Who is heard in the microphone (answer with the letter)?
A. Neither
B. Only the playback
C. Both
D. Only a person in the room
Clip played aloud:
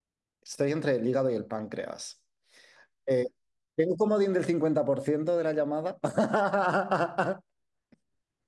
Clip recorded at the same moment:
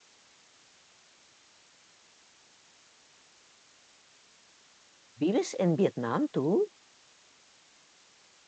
D